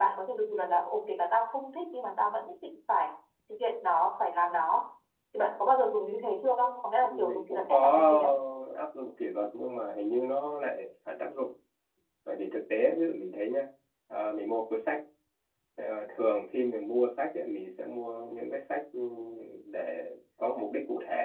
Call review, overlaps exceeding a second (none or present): present